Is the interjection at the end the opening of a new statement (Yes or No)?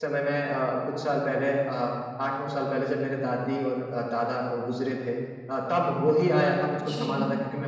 No